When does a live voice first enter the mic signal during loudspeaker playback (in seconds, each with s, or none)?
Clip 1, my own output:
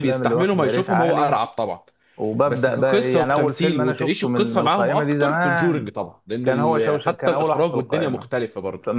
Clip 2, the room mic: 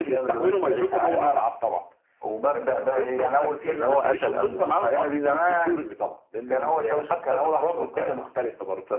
3.7 s